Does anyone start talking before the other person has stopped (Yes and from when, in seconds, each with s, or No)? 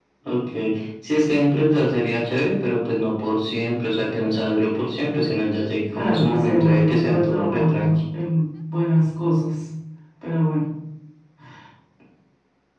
Yes, from 5.9 s